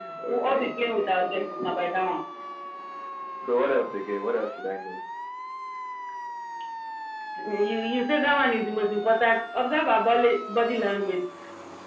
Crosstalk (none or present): present